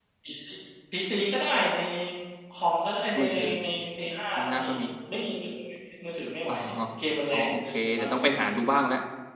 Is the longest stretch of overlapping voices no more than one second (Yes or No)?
No